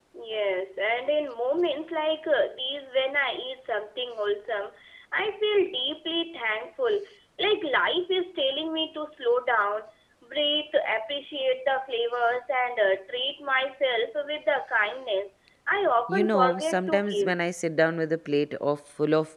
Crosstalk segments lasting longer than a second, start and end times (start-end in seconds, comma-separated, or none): 16.1-17.3